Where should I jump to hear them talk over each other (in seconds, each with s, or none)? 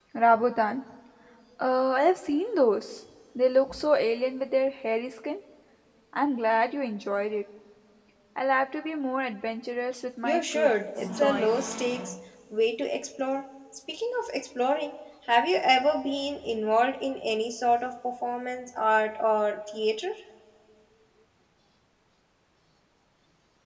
10.2 s